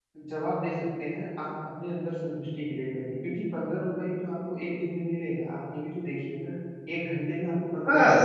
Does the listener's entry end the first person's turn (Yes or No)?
No